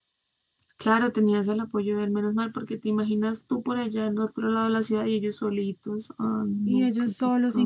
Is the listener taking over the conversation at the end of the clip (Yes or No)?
Yes